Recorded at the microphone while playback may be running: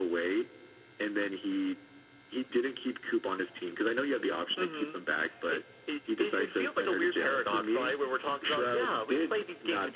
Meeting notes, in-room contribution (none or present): none